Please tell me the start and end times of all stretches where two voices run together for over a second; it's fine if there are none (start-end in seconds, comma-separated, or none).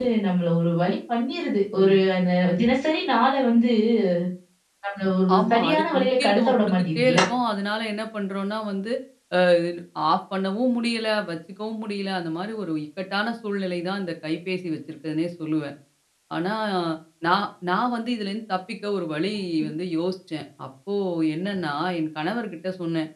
5.4-7.2